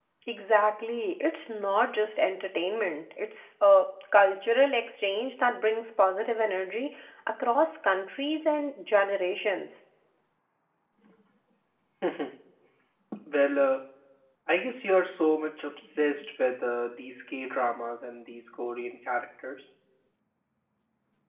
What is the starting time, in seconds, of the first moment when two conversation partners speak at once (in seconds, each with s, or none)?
none